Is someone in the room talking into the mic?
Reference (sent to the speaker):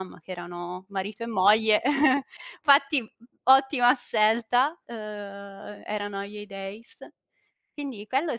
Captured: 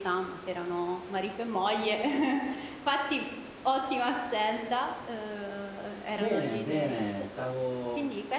Yes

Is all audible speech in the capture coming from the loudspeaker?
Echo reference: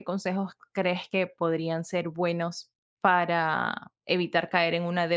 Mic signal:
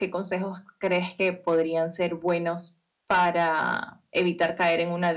Yes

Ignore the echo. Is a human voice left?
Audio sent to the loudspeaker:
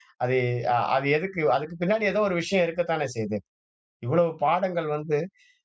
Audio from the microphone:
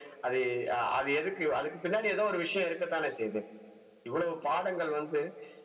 No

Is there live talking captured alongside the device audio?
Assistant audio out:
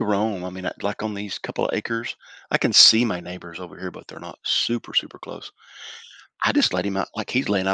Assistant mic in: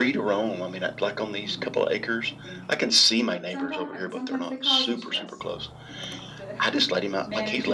Yes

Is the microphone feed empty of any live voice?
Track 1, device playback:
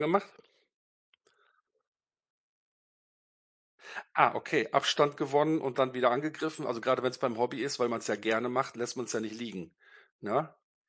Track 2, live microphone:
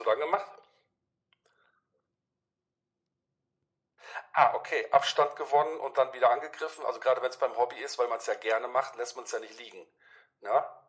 Yes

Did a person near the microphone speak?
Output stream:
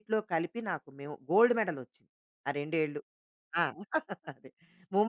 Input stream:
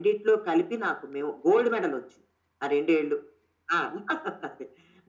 No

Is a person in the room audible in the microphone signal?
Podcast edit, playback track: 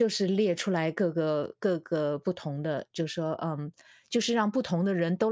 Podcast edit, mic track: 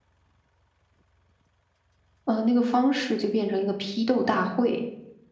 Yes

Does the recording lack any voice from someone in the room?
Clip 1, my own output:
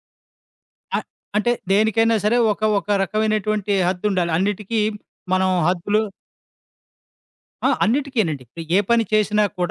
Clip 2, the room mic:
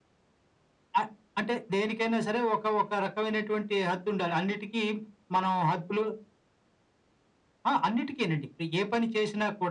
Yes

